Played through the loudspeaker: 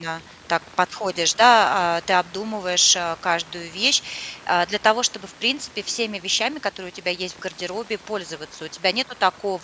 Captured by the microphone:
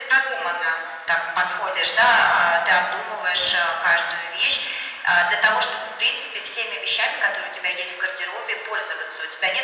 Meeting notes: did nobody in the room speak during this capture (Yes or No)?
Yes